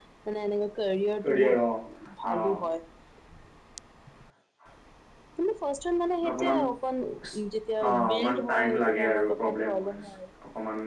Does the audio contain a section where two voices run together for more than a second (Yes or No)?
Yes